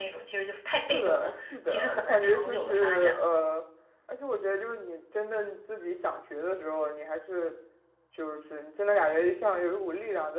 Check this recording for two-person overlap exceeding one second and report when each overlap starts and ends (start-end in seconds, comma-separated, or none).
0.9-3.2